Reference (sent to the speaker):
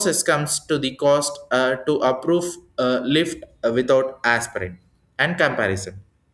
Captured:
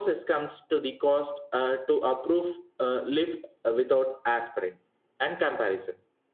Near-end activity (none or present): none